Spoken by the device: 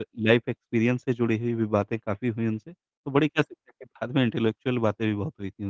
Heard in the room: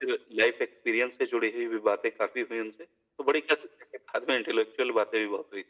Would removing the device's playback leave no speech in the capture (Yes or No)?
Yes